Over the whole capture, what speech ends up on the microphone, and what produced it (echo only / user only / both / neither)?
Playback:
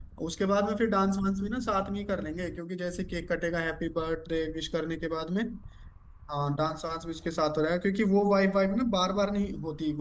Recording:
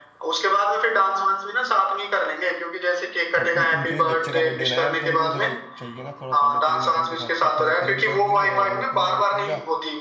both